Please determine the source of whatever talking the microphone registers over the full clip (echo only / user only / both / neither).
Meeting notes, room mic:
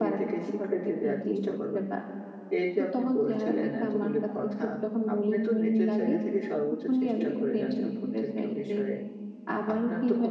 both